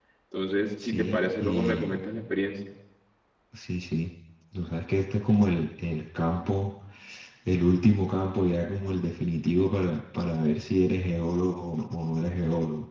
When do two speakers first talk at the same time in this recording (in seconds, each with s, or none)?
0.8 s